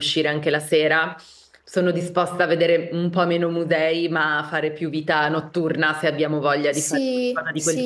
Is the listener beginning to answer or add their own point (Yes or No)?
Yes